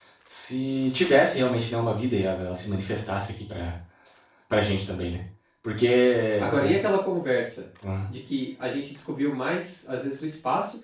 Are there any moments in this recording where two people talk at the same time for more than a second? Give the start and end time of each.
none

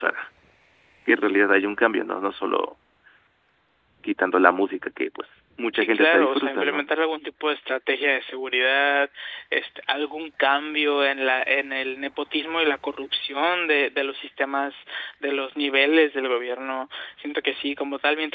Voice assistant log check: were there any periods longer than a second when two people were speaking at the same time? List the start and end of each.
5.7-7.0

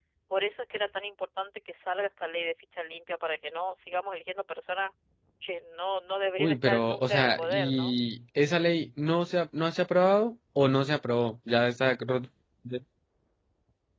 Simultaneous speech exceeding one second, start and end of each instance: 6.4-7.9

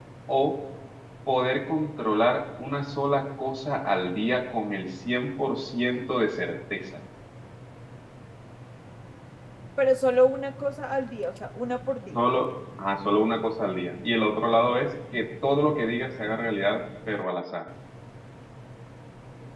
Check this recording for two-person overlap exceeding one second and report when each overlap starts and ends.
none

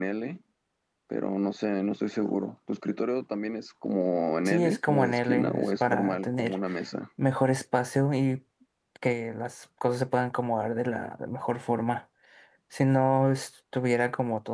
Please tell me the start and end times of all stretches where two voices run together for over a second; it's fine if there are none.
4.5-6.6

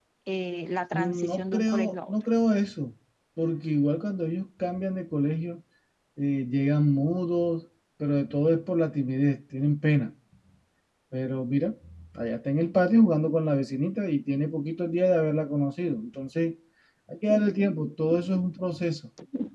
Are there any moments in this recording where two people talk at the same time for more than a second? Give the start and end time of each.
0.9-2.1

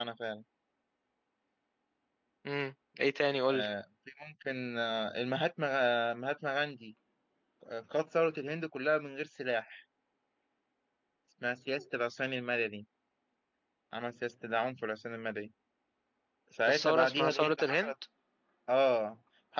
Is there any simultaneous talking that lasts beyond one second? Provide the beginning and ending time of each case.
16.7-17.9

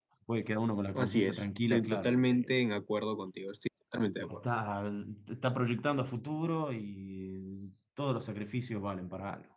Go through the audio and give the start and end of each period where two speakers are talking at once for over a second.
1.0-2.6

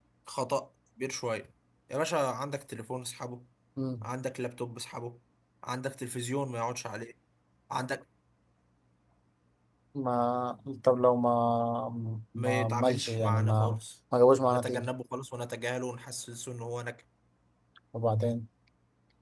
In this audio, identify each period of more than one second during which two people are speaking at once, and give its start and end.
12.4-13.8

